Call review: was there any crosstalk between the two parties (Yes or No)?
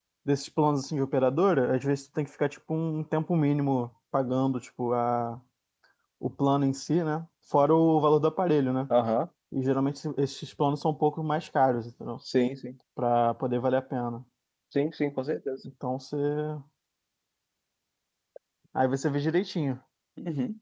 No